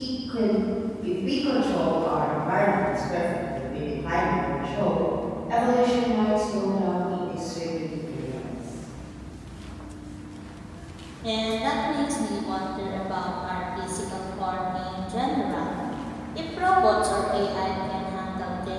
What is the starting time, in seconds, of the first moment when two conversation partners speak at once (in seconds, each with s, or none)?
none